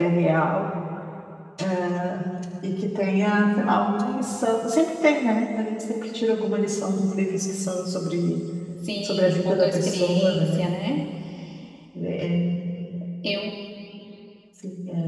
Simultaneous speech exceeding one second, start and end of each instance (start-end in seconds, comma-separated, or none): 9.0-10.7